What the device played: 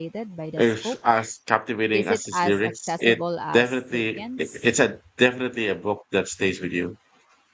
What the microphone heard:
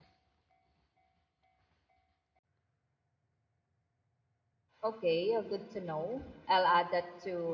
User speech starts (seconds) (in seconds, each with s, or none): 4.8 s